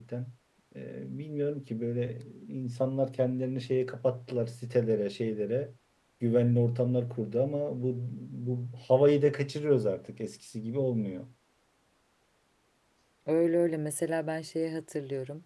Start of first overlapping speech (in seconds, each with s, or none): none